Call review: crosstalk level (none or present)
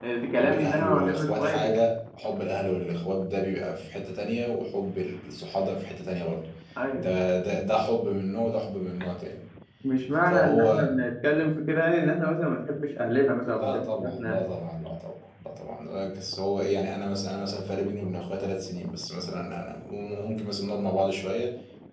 present